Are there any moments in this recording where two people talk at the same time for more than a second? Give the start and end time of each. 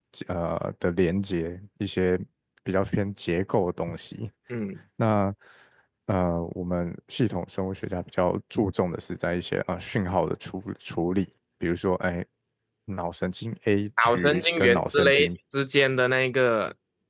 14.0-15.3

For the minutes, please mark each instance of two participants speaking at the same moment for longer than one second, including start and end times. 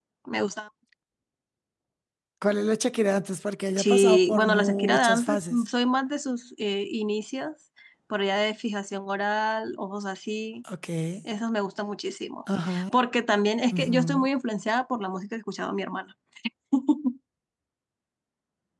3.8-5.6

